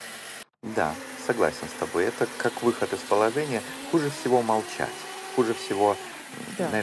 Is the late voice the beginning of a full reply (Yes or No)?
No